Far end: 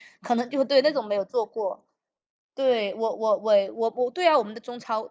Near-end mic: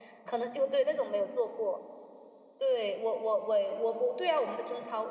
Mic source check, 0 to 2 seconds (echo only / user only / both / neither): echo only